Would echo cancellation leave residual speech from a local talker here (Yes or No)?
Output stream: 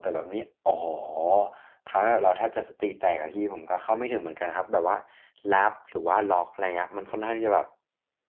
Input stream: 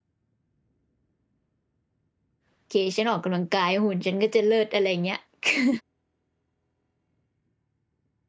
Yes